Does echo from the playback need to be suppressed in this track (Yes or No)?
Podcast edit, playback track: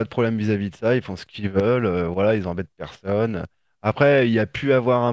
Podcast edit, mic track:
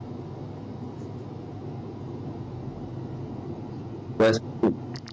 No